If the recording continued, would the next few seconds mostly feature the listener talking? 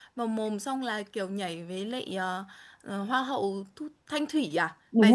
Yes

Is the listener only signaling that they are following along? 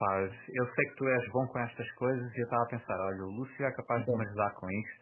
Yes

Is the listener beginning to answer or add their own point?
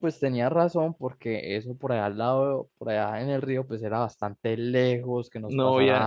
Yes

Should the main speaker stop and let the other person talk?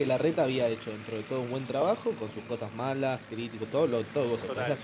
No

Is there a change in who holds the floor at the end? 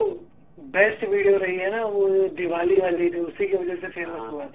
Yes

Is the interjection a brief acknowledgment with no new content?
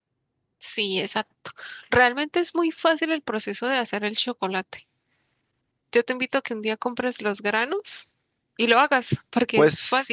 No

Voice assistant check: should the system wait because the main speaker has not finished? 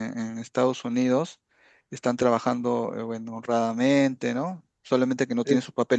Yes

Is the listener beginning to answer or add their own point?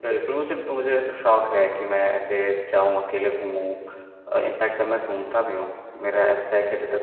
No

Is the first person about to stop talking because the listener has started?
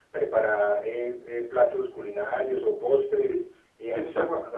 No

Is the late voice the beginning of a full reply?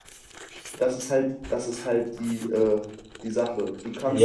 Yes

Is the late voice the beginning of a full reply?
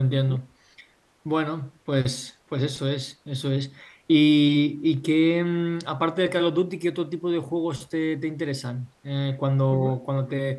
No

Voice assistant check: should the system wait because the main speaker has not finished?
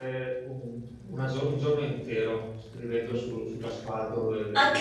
No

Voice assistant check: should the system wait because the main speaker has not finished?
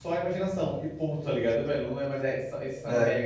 Yes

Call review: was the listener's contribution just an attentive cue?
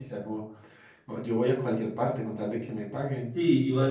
No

